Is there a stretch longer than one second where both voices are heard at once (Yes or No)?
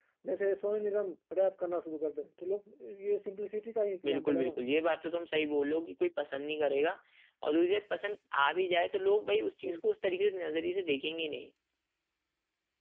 No